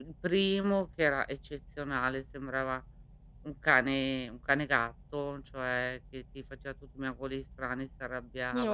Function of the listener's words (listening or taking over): listening